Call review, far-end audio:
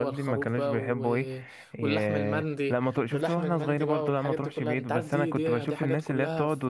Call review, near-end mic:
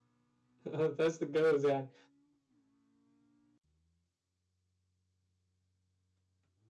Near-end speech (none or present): present